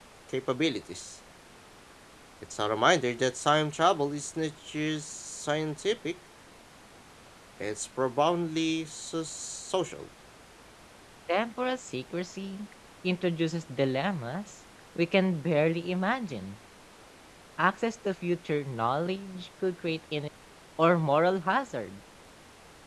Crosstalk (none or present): none